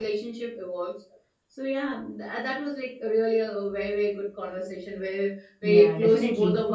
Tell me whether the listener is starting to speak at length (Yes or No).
Yes